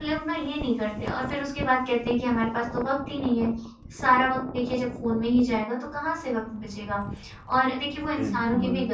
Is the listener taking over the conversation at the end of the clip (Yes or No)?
No